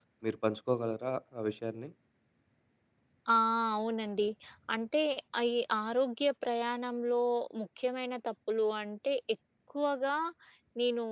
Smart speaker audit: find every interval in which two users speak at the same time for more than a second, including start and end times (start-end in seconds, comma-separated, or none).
none